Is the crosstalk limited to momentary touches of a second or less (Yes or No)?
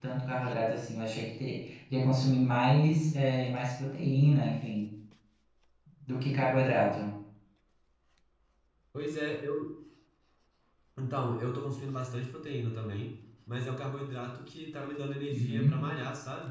Yes